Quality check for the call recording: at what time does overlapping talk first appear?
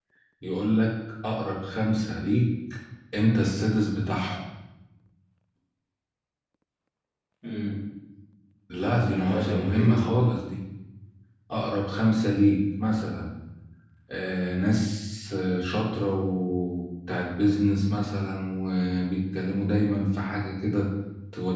8.8 s

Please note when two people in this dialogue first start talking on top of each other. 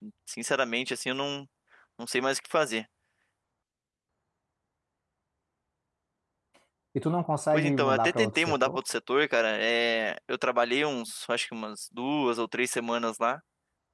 7.5 s

